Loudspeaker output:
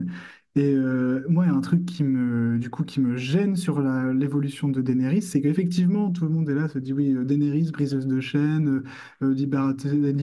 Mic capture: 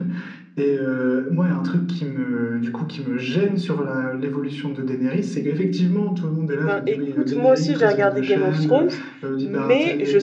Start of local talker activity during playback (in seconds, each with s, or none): 6.5 s